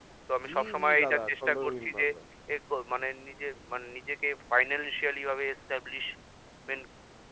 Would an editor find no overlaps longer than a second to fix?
No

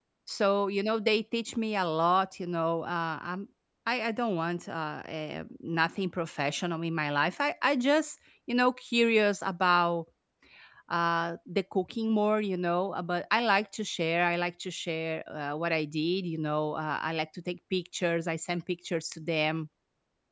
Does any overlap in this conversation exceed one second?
No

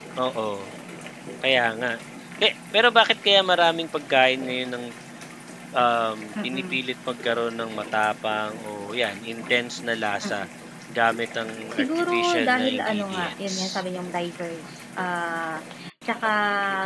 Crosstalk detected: Yes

